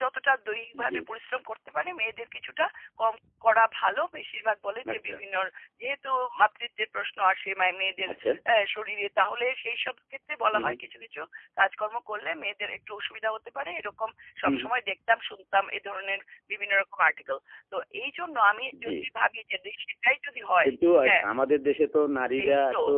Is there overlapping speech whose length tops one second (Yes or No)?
No